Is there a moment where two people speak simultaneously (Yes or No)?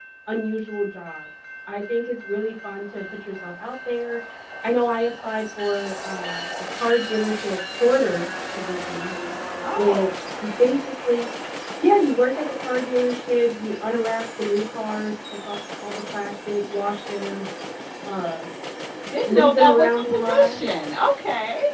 Yes